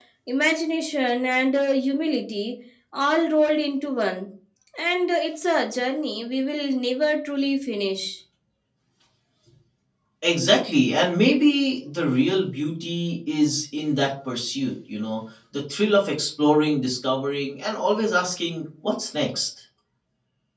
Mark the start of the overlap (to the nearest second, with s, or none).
none